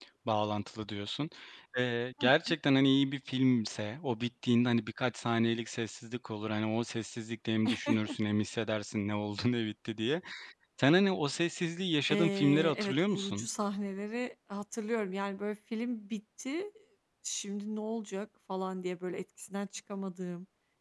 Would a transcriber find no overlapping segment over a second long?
No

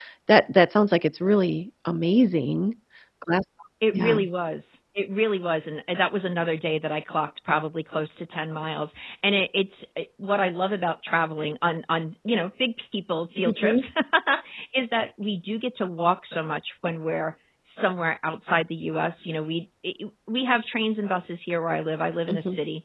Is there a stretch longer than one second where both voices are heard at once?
No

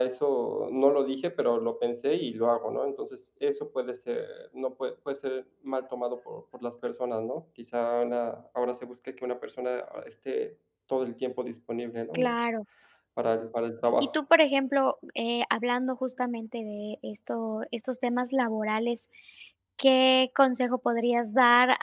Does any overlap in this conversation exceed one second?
No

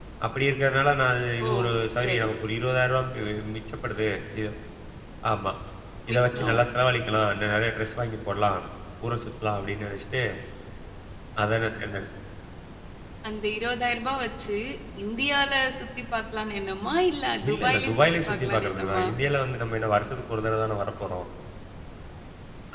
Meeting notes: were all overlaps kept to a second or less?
No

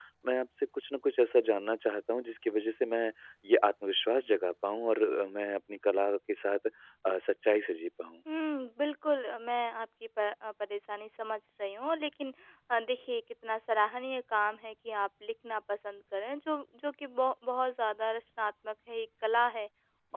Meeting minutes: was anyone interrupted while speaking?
No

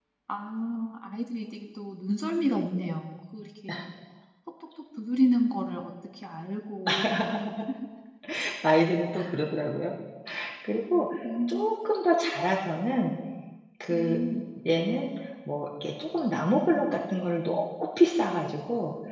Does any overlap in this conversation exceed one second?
No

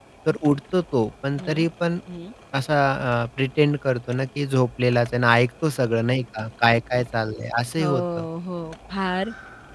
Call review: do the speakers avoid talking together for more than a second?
Yes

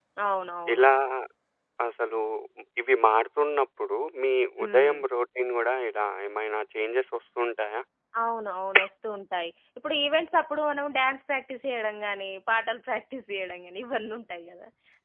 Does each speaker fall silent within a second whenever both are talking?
Yes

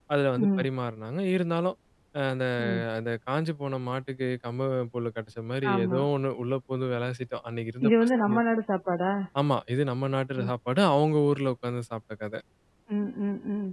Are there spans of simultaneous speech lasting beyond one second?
No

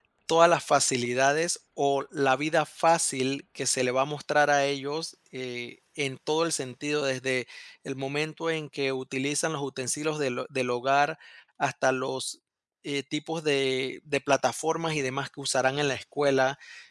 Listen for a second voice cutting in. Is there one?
No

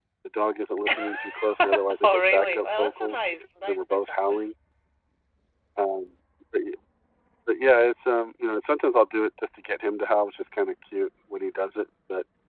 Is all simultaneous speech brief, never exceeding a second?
No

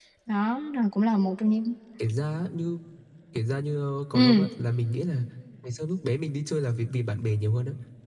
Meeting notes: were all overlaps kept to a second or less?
Yes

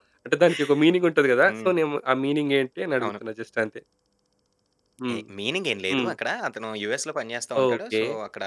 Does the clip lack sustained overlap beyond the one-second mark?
Yes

